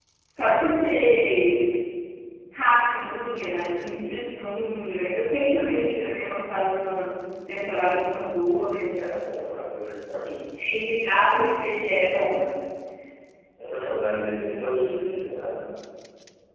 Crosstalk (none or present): present